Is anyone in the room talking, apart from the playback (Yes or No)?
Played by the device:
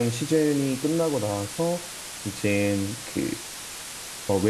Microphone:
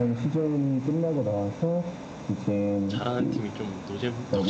Yes